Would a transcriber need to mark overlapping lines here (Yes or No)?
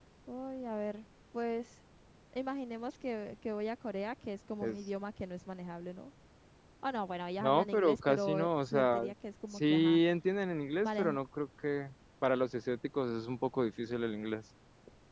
Yes